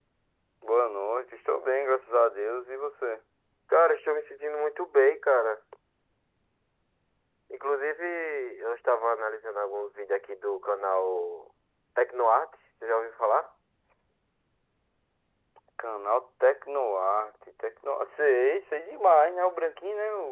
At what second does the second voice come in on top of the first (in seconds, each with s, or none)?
none